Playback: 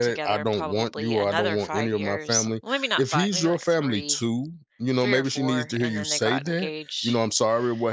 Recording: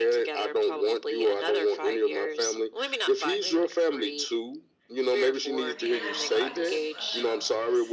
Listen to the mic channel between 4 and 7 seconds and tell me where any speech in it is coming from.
both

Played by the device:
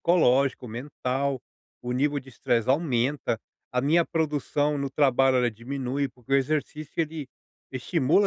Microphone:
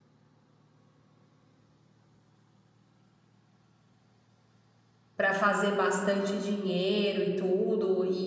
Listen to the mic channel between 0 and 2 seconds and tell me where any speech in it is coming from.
neither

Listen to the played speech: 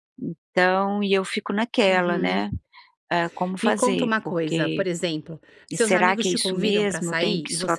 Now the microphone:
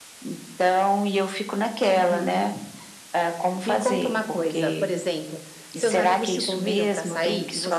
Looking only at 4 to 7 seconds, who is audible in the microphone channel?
echo only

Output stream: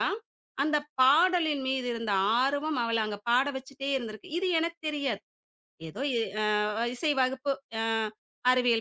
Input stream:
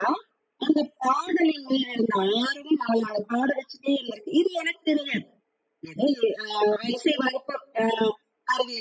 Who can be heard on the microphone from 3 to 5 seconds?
echo only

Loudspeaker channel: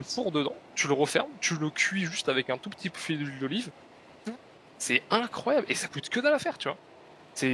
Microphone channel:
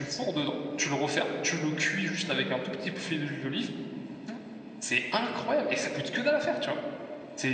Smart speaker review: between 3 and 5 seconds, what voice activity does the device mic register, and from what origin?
echo only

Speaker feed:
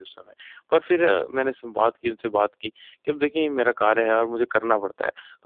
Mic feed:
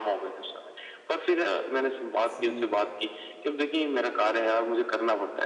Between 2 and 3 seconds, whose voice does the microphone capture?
both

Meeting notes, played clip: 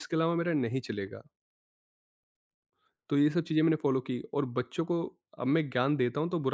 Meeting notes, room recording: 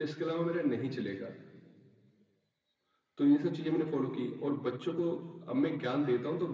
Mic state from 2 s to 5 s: echo only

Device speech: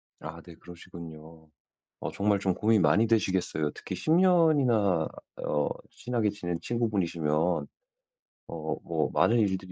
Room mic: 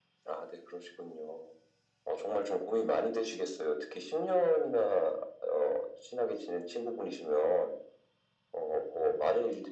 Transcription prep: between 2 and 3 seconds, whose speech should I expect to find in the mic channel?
echo only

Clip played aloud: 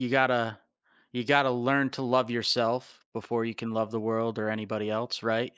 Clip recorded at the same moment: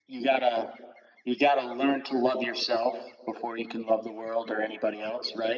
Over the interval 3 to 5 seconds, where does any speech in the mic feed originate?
echo only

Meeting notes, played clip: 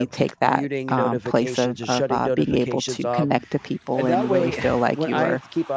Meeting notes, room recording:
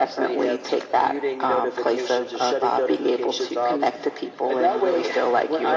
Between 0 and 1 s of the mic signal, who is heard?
echo only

